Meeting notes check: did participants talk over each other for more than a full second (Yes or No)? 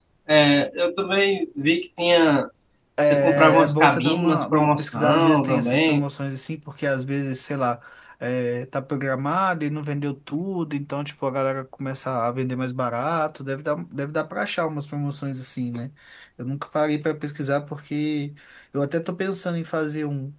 Yes